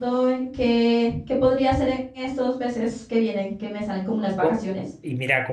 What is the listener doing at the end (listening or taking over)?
taking over